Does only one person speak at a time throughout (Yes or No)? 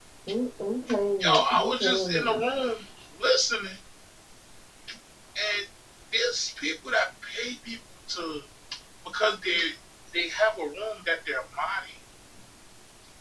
No